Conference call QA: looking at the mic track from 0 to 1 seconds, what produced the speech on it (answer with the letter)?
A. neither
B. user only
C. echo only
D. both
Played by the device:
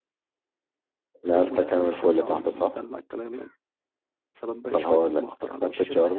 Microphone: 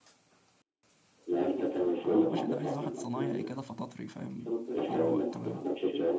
A